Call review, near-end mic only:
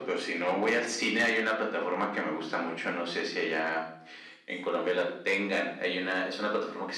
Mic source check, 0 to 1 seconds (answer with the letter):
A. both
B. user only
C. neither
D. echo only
D